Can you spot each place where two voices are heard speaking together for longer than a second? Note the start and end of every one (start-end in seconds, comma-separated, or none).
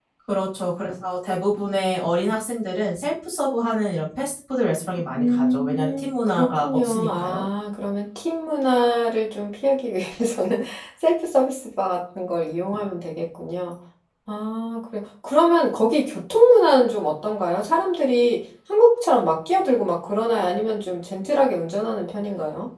5.2-7.4